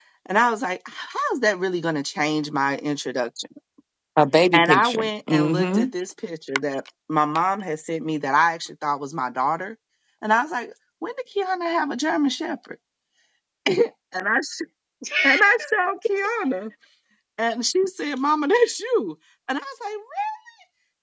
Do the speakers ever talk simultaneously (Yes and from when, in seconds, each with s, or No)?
Yes, from 4.5 s